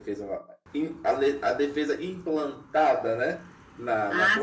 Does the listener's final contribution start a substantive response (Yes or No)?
Yes